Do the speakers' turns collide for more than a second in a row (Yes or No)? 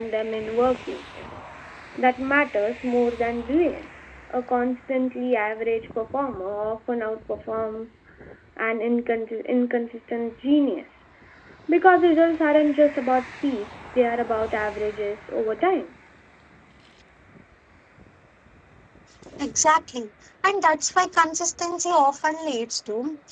No